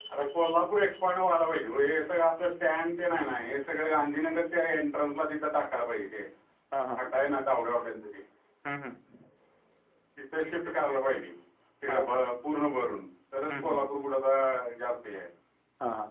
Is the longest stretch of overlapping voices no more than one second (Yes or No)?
Yes